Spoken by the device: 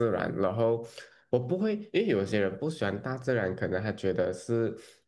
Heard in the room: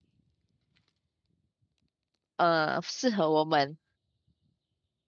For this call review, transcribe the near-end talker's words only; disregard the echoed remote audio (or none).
呃，适合我们。